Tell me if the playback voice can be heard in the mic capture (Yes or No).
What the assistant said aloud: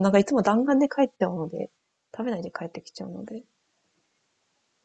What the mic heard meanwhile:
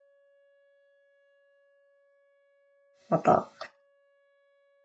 No